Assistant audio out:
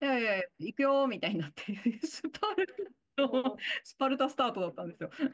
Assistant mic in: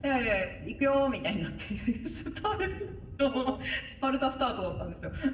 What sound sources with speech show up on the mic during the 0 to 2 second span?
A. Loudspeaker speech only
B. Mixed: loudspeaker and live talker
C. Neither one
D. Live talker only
A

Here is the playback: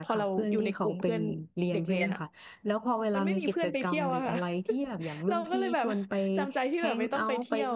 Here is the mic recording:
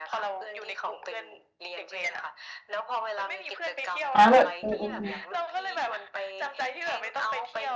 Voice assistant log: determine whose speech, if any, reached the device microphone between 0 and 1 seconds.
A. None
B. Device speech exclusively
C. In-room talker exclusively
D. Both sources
B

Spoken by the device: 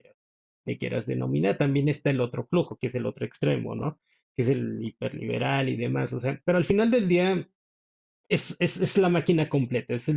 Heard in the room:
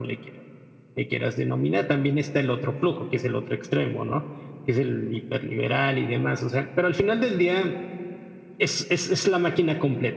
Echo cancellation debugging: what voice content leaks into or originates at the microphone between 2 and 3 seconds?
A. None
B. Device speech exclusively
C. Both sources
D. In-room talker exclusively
B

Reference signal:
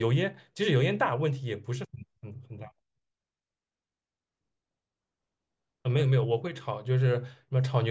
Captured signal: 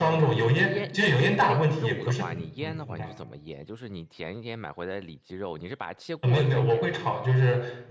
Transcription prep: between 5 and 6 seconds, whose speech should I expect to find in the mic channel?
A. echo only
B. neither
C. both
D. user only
D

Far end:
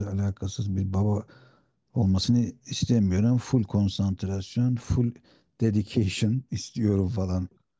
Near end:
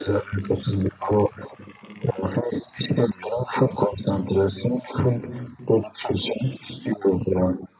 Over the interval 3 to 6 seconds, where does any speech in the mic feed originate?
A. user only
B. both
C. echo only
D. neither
C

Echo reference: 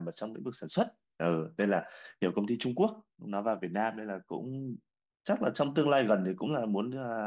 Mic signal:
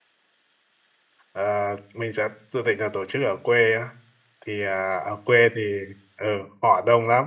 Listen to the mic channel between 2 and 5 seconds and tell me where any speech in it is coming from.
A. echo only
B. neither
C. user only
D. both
C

